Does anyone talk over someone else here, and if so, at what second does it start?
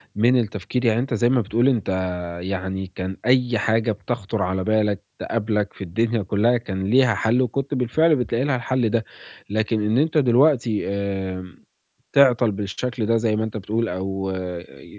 none

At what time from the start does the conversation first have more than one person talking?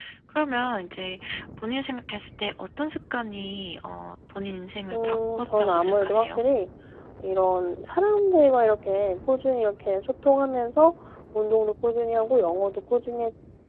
4.9 s

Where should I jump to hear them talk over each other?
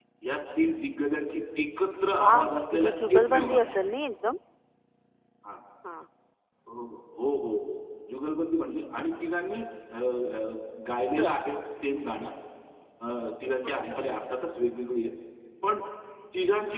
2.1 s

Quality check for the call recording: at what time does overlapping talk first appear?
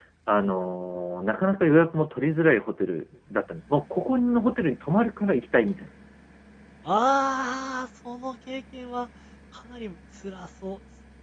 none

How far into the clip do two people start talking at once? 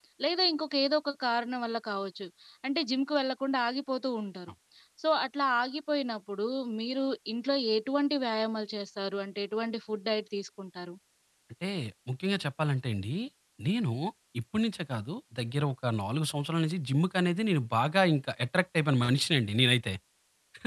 none

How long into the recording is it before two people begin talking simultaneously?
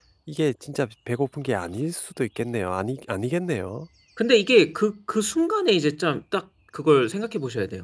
none

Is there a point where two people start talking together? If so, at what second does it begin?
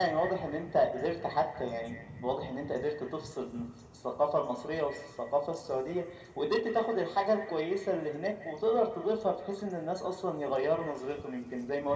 none

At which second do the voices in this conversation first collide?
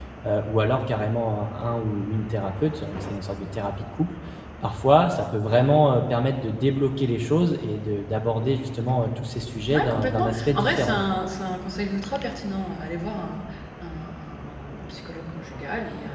9.7 s

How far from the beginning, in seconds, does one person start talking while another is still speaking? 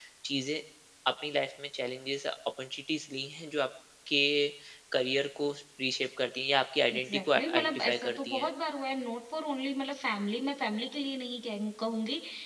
6.9 s

